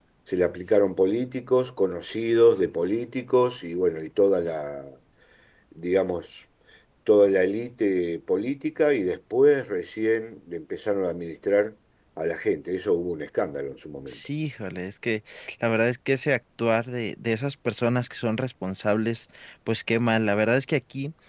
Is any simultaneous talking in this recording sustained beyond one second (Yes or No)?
No